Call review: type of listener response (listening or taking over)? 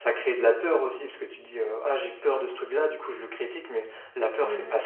listening